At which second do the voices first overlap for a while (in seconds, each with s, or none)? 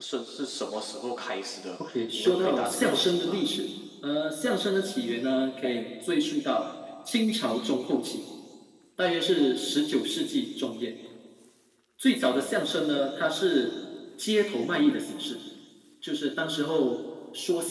1.8 s